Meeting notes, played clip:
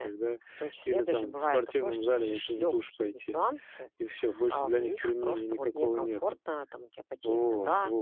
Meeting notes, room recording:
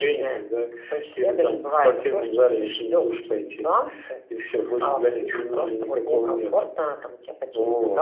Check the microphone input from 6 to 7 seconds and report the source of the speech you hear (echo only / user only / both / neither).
echo only